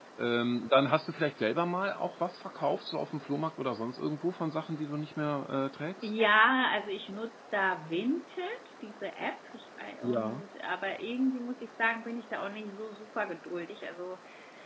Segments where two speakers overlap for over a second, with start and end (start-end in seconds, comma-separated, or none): none